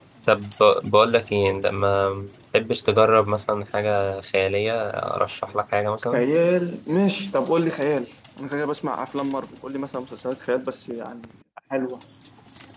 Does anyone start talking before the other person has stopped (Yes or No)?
No